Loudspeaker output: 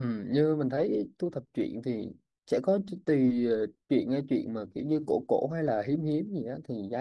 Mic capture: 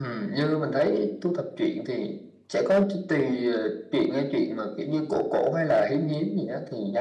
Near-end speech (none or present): none